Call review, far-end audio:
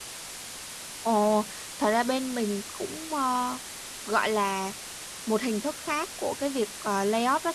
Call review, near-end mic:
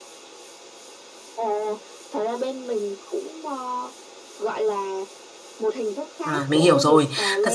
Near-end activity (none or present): present